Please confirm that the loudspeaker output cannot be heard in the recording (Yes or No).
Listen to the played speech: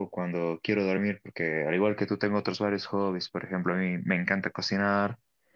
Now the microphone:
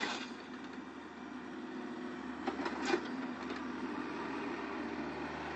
Yes